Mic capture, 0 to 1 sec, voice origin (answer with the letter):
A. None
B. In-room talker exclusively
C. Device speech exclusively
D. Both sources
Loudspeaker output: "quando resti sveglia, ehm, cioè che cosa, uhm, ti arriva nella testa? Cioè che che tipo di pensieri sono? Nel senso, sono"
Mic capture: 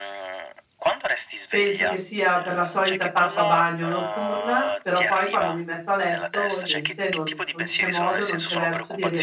C